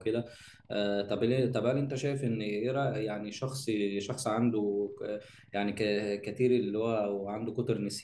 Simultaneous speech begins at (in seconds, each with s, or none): none